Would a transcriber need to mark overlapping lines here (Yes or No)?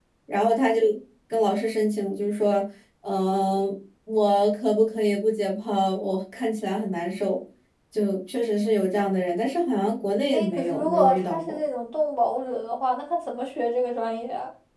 Yes